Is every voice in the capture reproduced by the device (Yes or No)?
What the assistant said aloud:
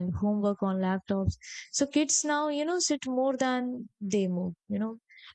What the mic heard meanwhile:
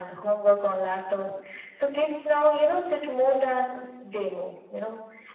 Yes